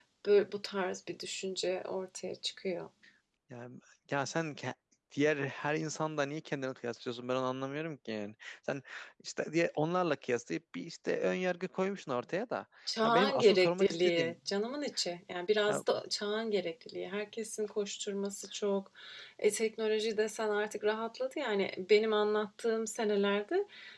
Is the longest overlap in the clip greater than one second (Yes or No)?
Yes